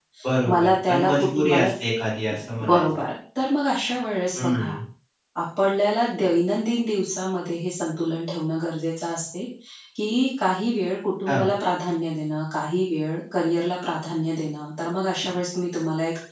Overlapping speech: Yes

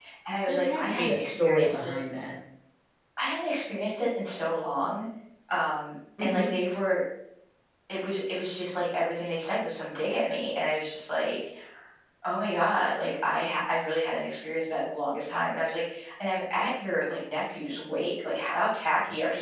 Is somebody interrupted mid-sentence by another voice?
Yes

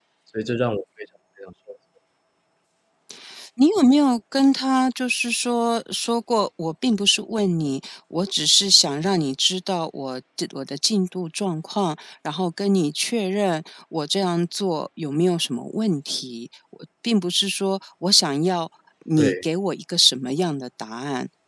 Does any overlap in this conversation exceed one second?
No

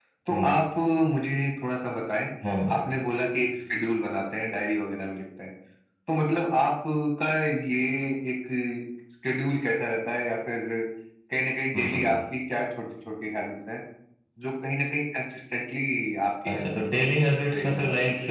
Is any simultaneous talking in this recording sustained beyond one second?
Yes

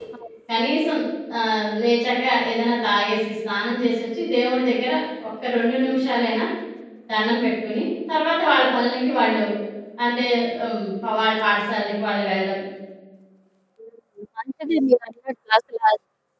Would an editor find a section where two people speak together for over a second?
No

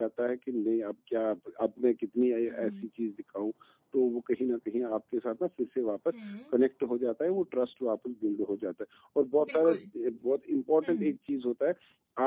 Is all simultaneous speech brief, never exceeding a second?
Yes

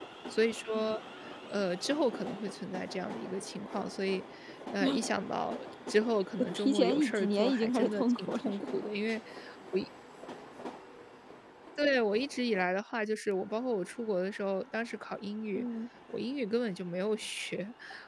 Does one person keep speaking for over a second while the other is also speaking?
Yes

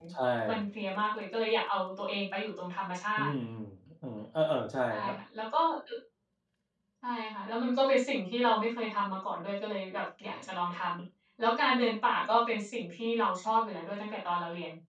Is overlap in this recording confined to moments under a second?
Yes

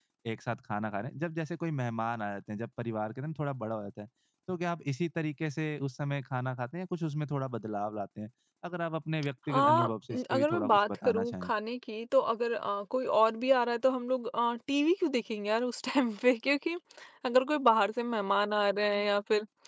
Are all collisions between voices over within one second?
No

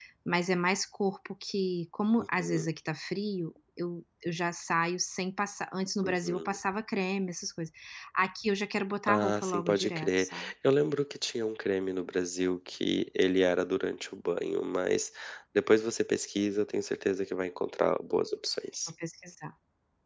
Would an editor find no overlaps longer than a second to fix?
No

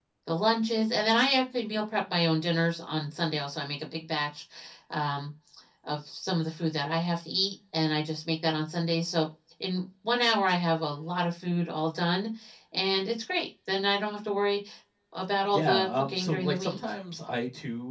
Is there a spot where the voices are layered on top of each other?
Yes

